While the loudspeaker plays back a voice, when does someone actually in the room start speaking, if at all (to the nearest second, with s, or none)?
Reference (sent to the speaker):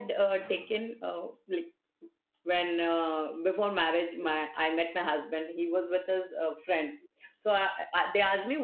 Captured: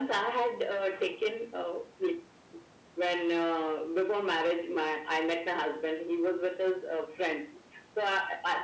none